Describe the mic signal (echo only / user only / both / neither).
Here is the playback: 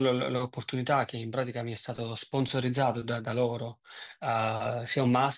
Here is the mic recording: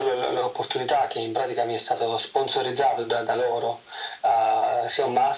echo only